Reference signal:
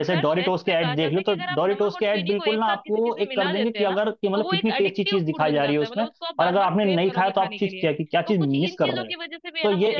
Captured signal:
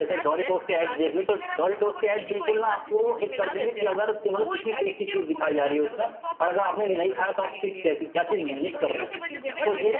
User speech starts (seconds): 8.4 s

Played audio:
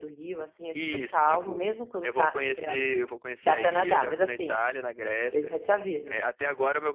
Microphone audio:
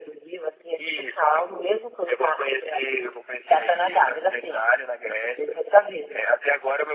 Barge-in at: none

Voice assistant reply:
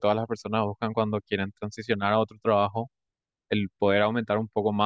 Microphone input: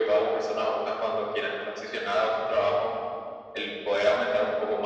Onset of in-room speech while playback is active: none

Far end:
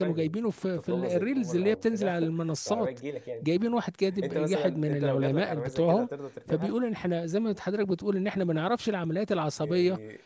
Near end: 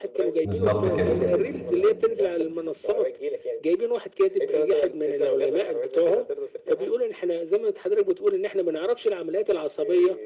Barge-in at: 0.4 s

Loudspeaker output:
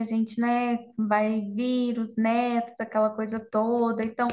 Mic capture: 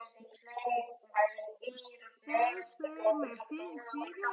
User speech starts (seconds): 2.2 s

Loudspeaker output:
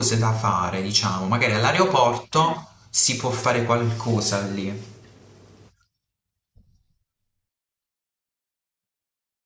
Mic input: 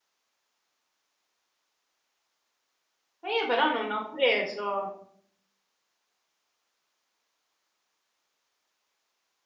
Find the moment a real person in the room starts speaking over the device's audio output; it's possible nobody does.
3.2 s

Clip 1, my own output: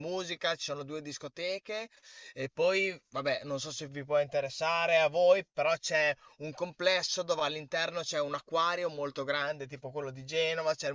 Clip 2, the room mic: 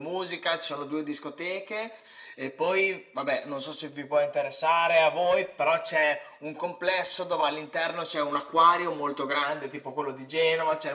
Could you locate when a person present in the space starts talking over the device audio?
none

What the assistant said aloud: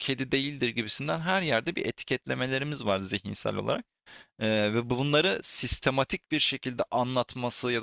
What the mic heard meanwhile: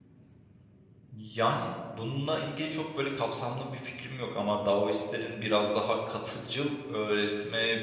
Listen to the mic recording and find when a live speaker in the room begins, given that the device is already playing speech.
1.1 s

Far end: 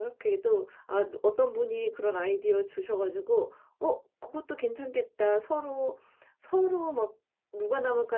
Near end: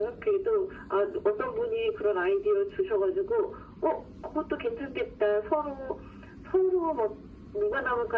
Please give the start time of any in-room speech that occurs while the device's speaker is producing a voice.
none

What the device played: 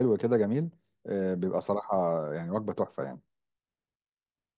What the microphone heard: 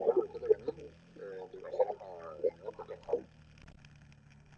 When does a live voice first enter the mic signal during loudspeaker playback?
none

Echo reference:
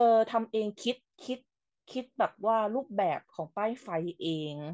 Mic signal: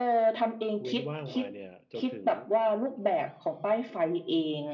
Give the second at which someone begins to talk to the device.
0.8 s

